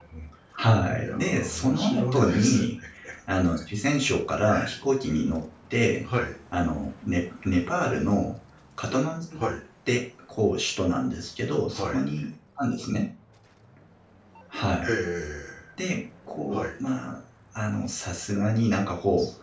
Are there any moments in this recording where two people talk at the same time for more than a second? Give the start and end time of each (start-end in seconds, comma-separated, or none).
1.0-2.6